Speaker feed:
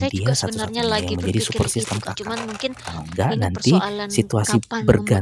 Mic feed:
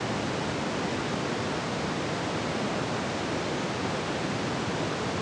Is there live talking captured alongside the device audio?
No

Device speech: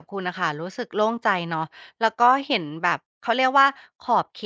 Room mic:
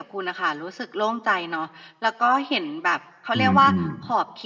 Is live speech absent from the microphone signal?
No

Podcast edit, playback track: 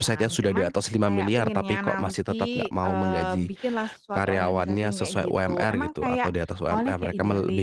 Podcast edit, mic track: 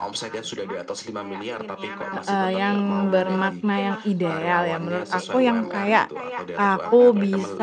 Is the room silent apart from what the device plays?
No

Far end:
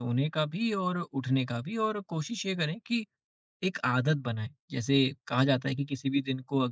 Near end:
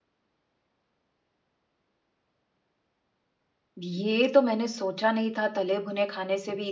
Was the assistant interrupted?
Yes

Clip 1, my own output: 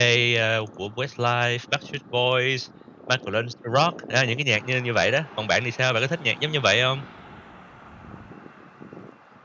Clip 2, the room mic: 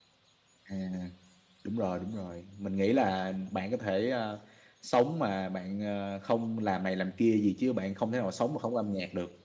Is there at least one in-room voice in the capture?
Yes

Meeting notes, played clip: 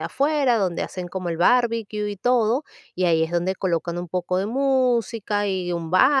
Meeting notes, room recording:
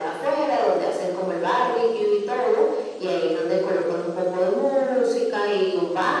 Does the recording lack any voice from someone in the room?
Yes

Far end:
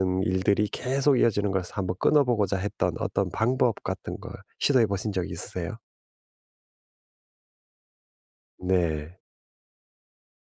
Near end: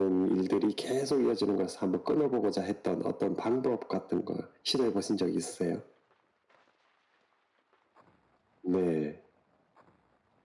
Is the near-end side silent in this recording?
Yes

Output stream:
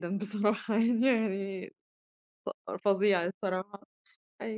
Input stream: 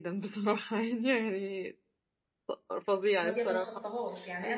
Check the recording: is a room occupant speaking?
Yes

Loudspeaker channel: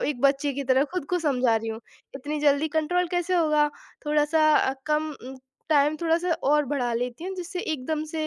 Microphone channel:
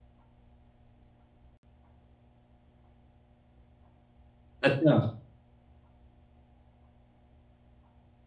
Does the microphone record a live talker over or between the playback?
Yes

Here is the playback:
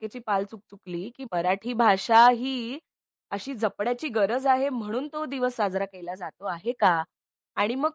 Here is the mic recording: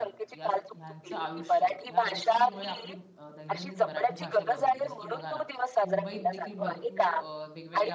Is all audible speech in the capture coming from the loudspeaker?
No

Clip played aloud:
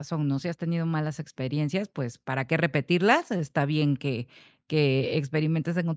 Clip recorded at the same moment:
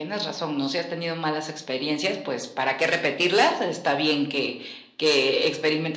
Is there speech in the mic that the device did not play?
No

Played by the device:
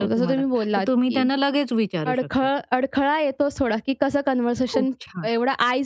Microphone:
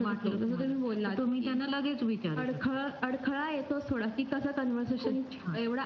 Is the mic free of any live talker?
Yes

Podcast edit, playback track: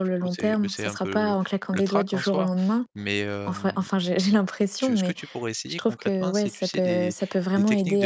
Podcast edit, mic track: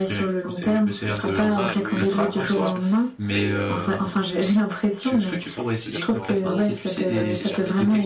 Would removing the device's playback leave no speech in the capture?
No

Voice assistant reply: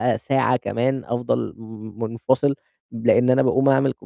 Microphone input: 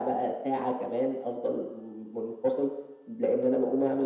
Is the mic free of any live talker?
Yes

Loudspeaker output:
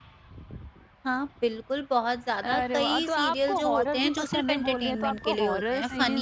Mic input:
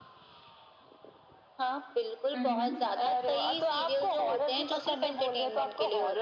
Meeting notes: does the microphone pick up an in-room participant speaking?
Yes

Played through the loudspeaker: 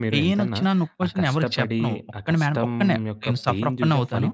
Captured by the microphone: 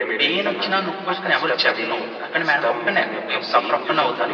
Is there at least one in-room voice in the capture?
No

